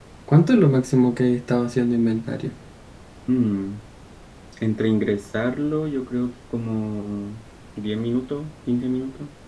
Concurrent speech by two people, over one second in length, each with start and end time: none

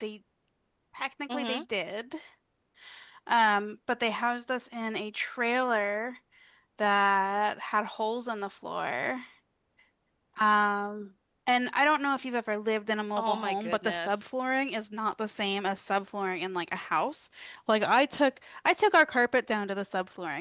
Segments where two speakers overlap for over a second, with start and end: 13.2-14.4

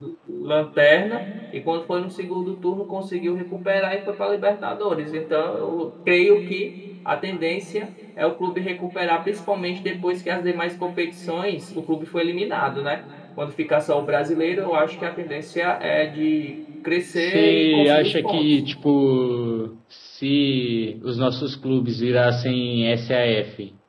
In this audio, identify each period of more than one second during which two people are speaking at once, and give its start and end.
17.2-18.5

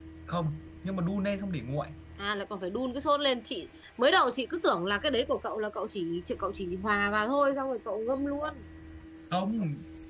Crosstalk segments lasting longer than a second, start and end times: none

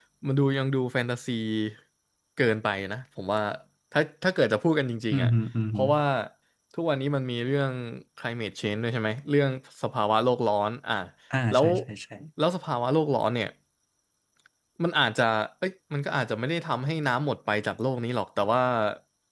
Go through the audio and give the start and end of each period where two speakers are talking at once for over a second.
none

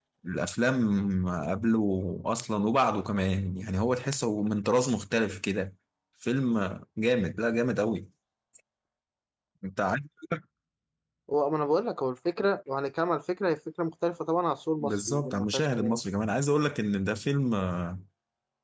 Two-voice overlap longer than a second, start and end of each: 14.8-16.0

